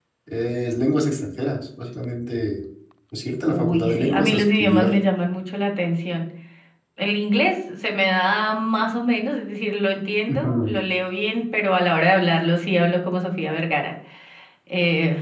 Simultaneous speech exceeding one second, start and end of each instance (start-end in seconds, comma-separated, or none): 3.5-4.9